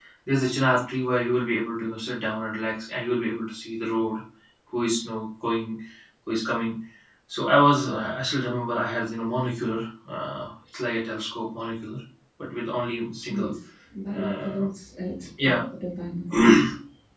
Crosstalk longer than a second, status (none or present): none